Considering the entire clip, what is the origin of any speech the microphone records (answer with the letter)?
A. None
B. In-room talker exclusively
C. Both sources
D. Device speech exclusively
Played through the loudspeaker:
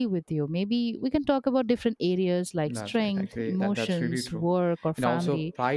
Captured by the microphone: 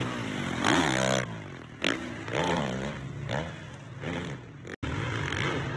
A